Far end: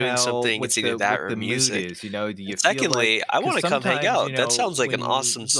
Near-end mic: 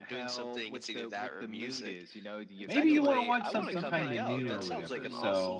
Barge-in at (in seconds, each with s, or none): 2.6 s